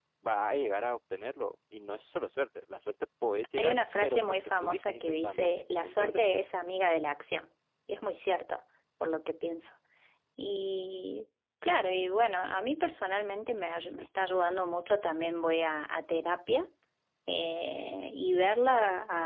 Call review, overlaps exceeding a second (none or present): present